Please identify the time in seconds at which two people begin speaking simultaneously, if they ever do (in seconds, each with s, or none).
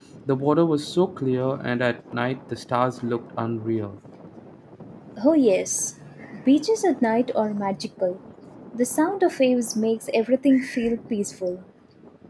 none